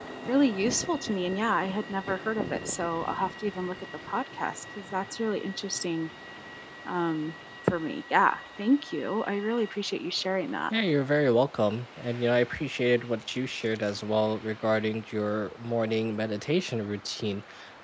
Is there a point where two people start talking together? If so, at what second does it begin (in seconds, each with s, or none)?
none